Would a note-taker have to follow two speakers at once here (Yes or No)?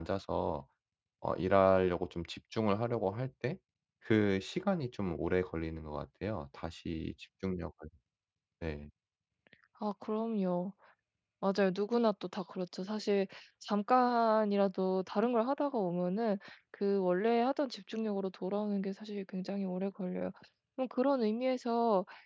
No